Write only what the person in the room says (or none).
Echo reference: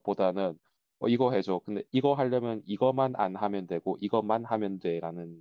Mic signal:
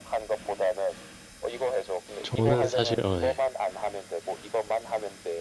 저는 사실, 어, 네.